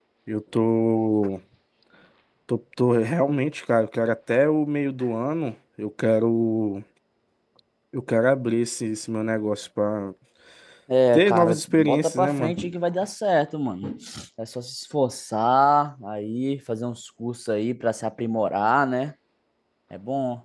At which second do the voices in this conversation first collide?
11 s

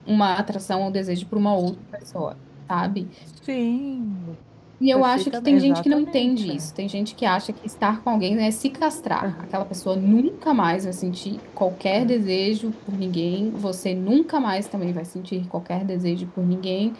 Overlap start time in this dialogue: 5 s

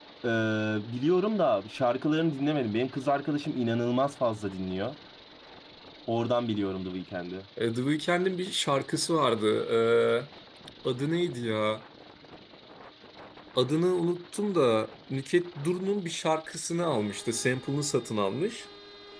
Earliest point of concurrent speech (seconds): none

